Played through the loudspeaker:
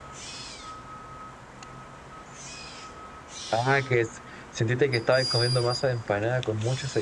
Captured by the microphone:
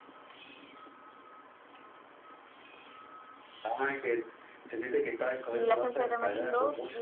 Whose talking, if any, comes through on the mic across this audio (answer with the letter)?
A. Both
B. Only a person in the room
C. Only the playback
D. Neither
A